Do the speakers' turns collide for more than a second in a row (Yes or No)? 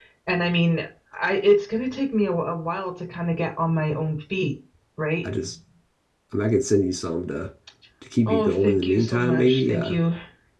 Yes